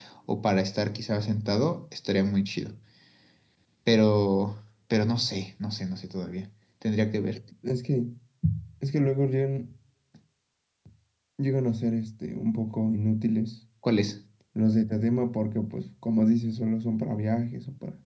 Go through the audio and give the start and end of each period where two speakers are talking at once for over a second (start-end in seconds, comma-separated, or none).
none